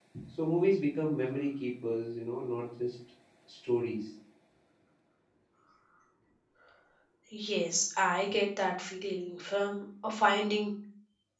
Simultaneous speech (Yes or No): No